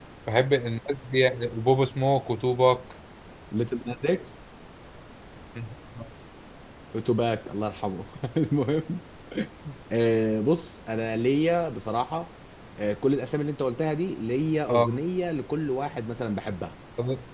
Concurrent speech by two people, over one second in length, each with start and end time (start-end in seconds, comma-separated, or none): none